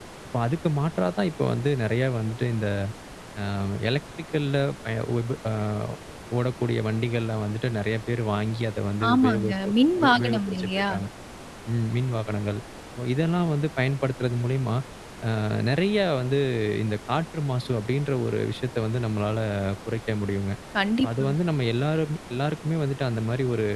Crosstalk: present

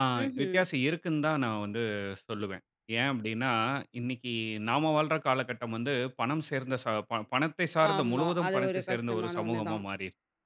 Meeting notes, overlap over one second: present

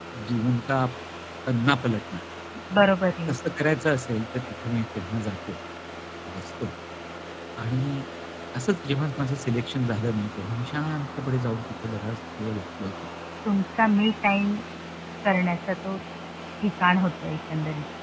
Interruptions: none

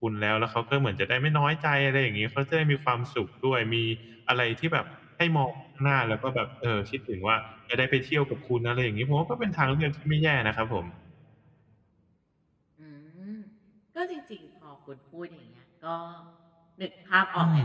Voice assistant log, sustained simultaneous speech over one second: none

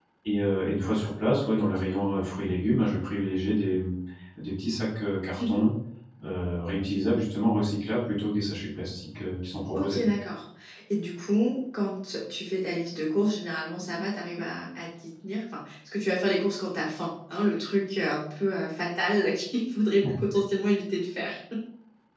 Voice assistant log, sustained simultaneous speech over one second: none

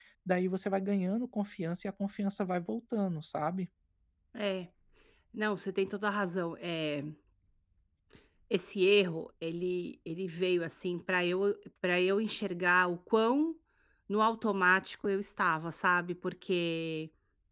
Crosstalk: none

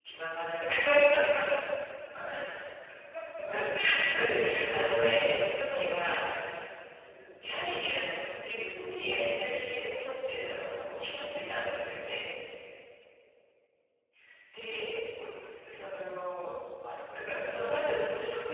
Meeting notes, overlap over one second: present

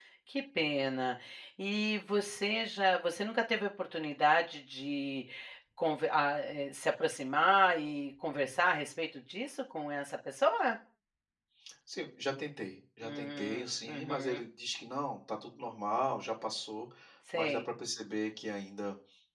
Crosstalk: present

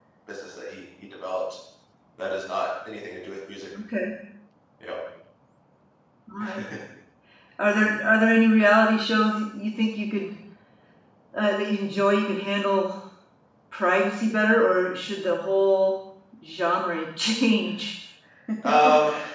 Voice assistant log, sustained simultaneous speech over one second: none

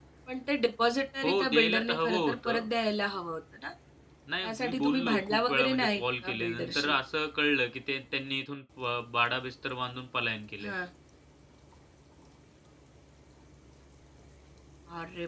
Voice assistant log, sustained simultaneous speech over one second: present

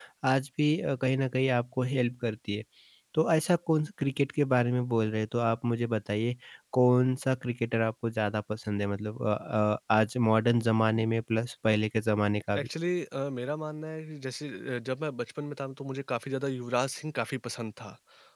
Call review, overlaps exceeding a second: none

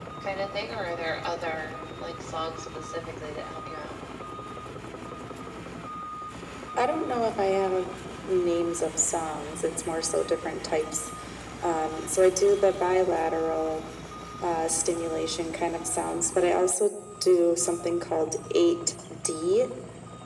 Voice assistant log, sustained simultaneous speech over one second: none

